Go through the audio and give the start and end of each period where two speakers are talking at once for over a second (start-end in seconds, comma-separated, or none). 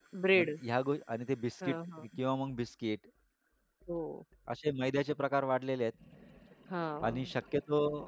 none